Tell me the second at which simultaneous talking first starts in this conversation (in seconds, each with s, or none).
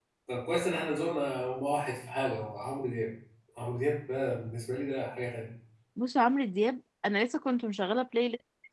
none